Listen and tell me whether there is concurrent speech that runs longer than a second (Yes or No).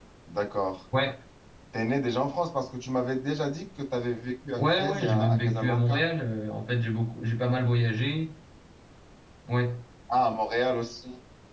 Yes